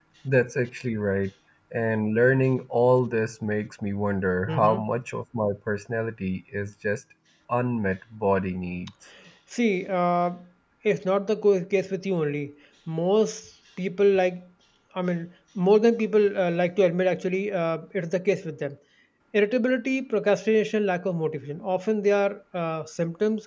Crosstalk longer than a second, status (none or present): none